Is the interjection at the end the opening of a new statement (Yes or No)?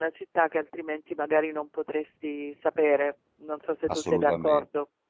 Yes